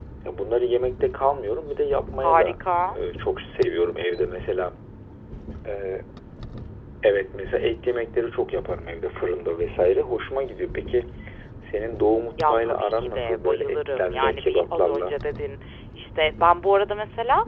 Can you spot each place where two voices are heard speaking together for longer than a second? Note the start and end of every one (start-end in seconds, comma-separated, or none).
12.4-15.2